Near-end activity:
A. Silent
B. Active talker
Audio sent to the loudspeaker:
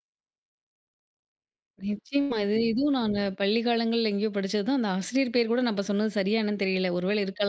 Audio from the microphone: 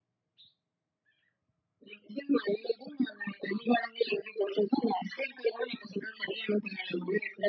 A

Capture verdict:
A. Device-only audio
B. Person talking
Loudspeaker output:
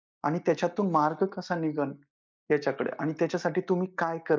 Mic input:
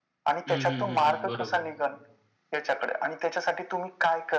B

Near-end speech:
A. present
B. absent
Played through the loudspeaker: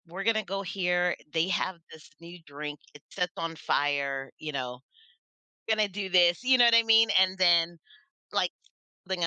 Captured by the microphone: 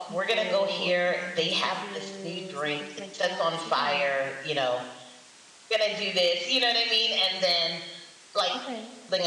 A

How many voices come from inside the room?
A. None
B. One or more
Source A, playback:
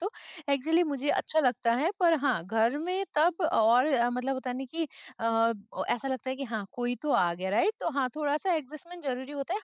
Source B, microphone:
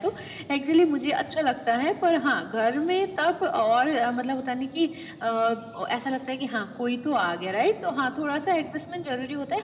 A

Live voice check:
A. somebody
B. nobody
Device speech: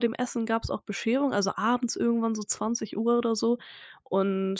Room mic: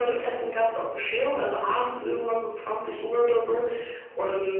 B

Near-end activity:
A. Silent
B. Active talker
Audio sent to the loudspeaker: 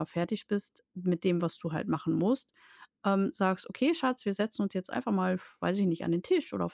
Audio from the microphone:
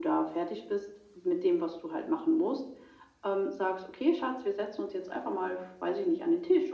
A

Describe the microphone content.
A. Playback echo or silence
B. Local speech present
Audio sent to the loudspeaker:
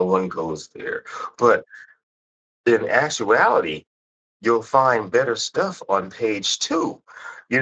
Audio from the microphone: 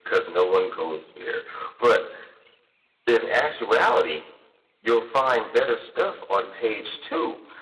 A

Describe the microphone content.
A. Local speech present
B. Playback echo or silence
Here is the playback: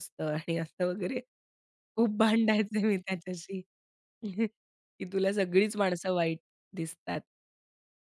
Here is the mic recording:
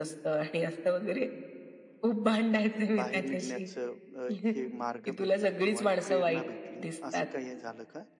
A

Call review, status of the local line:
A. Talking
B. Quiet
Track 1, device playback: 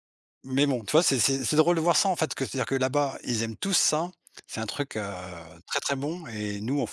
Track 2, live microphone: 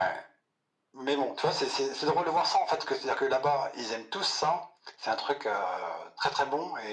B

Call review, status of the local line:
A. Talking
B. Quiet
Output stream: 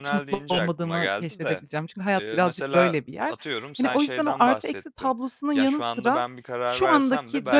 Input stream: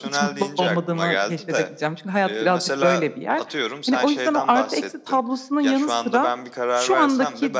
B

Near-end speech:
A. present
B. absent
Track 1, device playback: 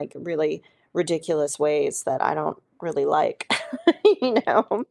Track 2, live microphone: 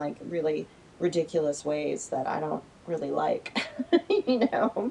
B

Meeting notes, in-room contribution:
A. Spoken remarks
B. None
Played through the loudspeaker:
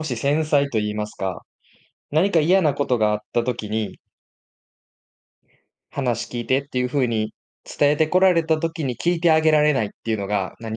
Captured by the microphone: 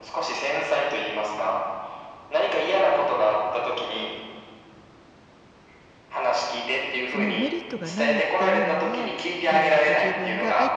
A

